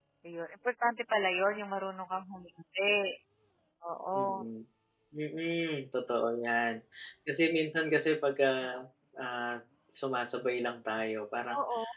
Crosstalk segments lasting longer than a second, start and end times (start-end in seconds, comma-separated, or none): none